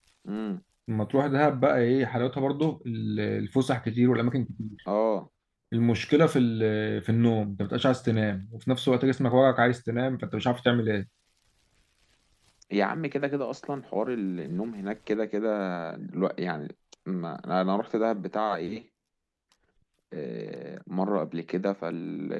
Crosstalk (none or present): none